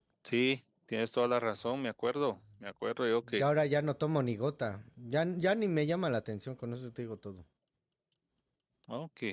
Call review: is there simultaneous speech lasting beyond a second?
No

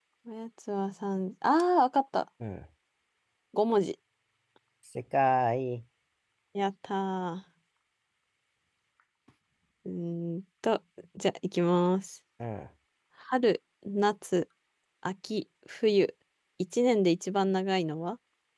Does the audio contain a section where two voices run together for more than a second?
No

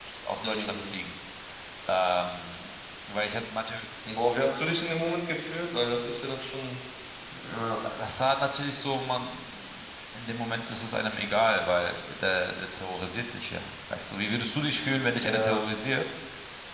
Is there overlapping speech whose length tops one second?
No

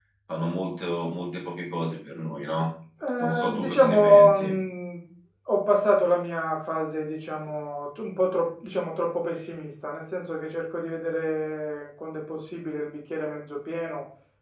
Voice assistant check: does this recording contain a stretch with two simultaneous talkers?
Yes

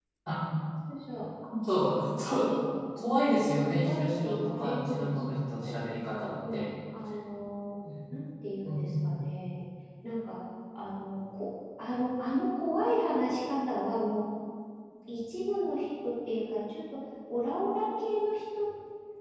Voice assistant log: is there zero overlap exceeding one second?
No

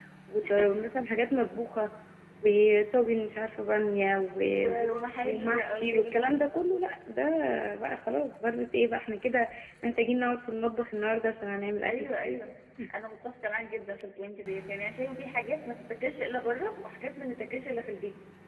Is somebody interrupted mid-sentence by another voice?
Yes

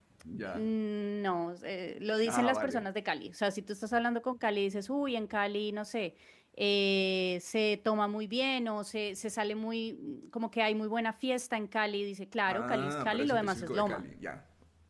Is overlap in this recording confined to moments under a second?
No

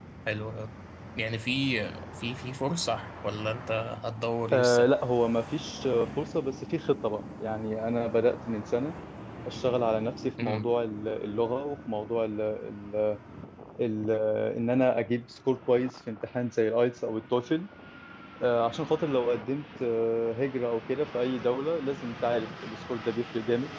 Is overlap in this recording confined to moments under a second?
Yes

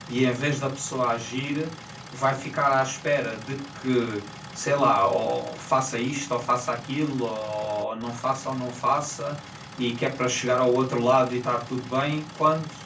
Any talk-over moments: No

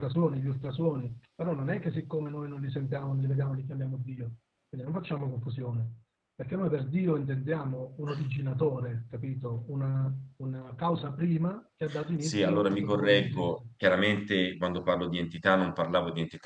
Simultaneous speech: Yes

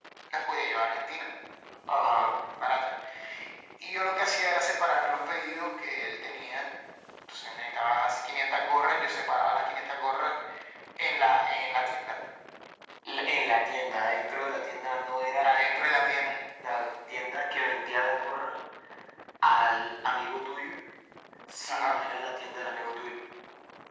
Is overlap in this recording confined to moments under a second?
Yes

